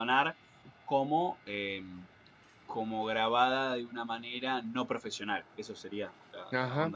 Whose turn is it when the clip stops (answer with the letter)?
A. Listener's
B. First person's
A